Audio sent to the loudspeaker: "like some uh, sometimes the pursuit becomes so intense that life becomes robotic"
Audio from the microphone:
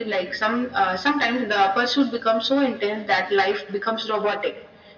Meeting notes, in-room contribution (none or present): none